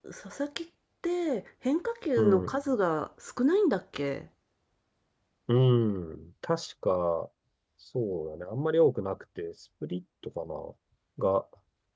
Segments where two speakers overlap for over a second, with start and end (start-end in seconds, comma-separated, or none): none